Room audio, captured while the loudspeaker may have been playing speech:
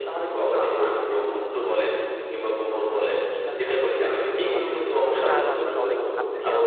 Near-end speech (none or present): present